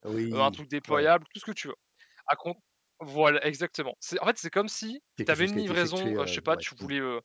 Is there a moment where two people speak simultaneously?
Yes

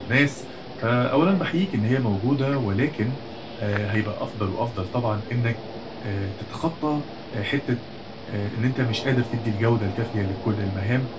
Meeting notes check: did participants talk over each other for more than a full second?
No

